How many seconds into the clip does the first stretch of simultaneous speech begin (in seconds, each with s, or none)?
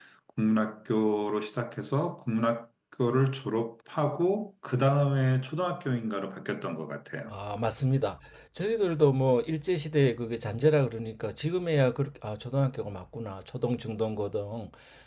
none